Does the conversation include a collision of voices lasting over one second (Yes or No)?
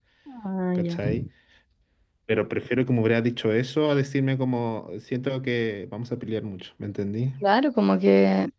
No